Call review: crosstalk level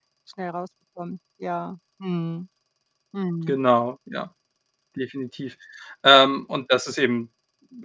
none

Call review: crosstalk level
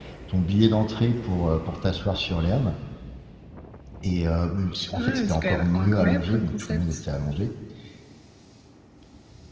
present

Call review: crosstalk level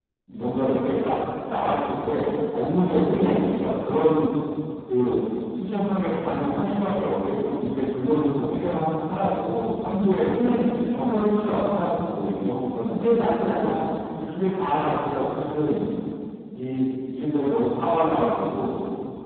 present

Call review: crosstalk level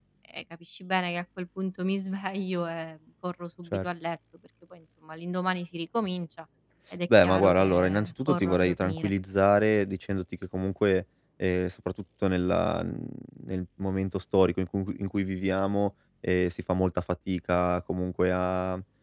present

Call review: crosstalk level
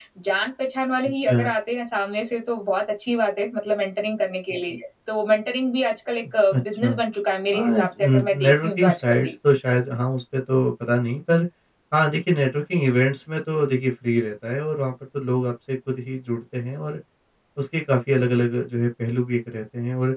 present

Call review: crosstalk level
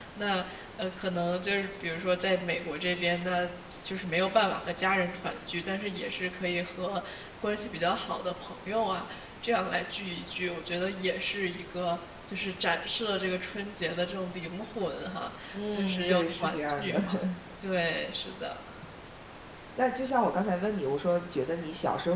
present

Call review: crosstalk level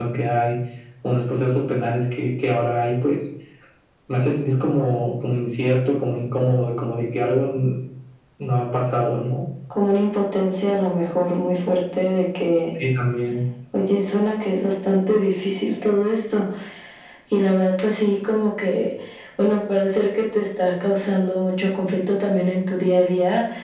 none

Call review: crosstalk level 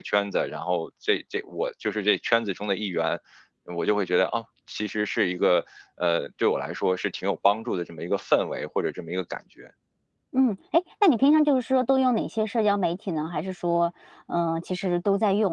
none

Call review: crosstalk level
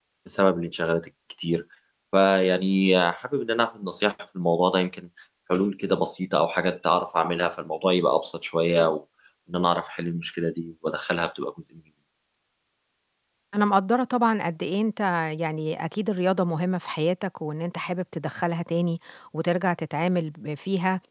none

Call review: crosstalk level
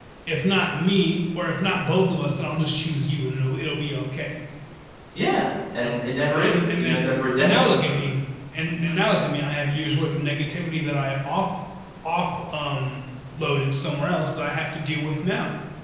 present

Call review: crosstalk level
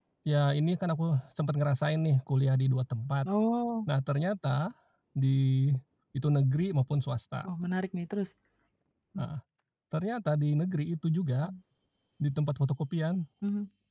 none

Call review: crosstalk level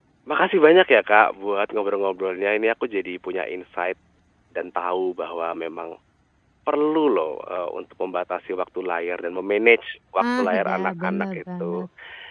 present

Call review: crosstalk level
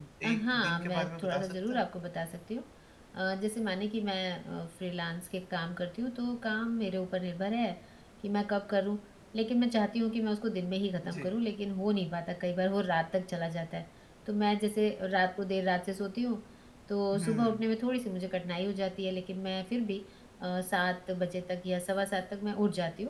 present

